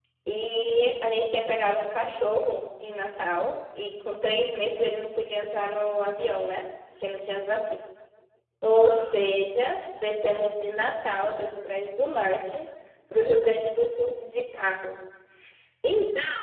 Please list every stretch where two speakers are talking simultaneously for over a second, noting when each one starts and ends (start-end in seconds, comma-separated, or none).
8.8-10.7